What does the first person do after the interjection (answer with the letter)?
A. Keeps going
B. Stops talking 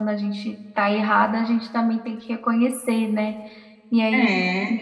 A